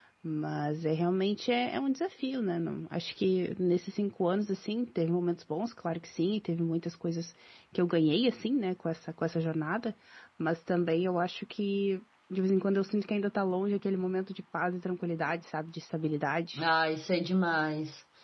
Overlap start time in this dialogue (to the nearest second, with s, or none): none